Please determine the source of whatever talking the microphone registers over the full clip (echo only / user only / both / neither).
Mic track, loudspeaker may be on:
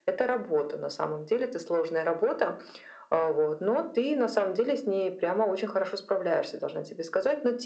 echo only